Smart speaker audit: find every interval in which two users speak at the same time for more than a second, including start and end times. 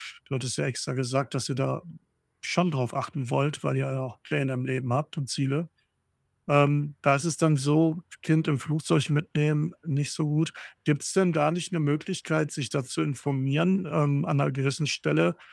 none

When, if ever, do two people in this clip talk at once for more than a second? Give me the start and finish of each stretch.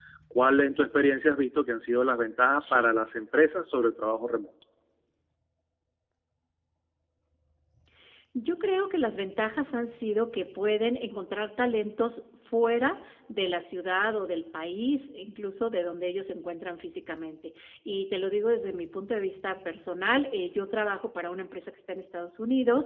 none

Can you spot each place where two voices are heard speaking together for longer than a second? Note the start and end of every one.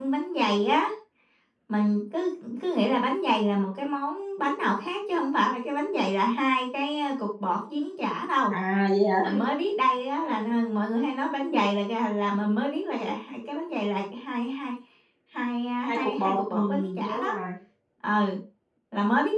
15.9-17.3

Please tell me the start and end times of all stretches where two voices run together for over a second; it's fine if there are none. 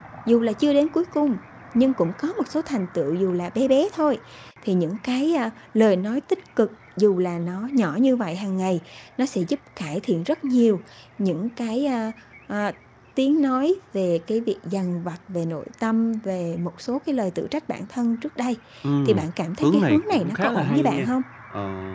19.6-21.1

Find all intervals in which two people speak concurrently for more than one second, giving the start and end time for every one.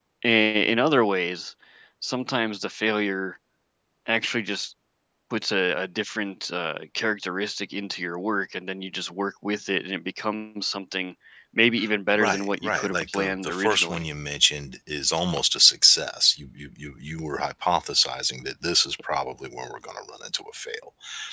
12.2-14.0

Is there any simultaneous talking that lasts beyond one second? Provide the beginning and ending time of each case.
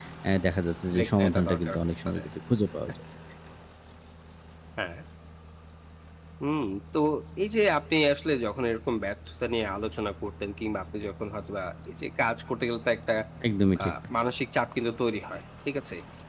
0.9-2.2

